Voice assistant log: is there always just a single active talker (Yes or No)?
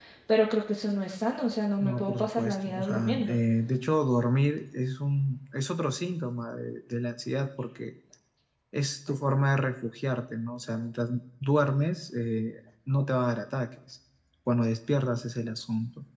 No